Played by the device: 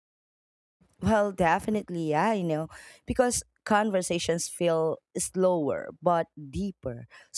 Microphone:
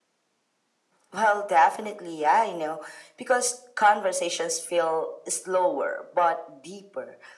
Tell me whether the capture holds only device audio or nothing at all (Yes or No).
Yes